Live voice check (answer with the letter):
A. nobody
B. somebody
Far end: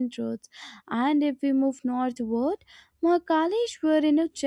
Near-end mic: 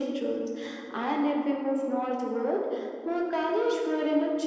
A